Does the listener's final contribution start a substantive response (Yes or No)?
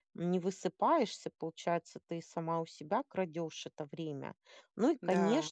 No